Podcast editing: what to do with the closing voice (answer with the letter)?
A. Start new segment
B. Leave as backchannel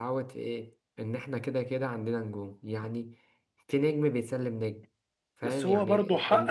A